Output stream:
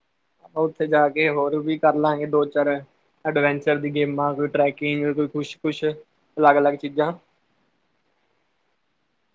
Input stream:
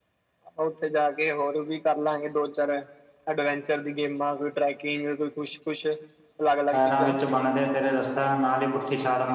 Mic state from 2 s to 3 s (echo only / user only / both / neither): echo only